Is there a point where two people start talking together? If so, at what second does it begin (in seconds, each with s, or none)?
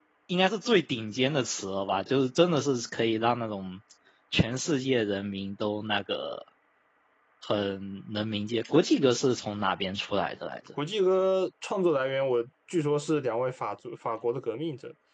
none